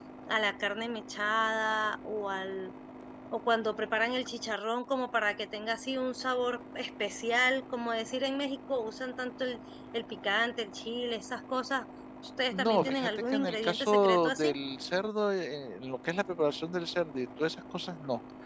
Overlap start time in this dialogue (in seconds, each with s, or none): 12.5 s